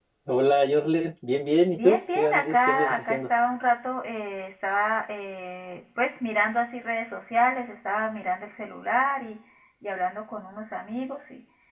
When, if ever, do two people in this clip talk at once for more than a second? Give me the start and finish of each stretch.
1.7-3.3

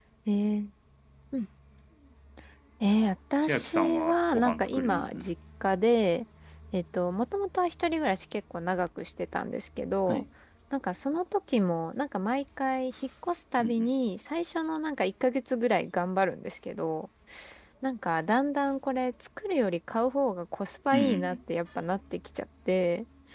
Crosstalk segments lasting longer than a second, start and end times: 3.4-5.3

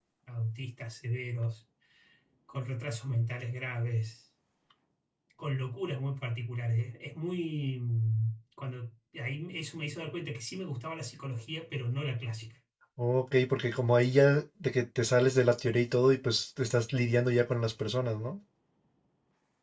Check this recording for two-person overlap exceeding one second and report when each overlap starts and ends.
none

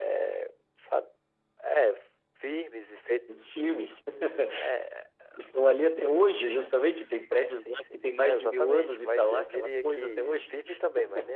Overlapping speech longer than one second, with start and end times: 7.6-10.5

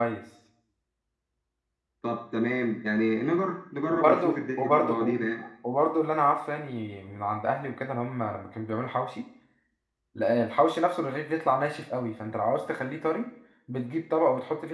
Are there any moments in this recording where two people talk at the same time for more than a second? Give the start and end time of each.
3.9-5.2

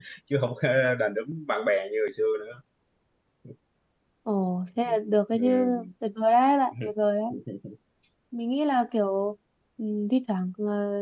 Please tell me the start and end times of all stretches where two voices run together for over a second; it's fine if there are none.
none

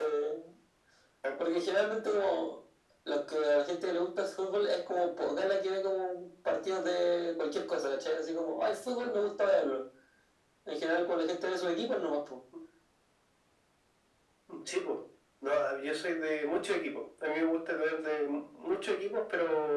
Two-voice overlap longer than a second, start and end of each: none

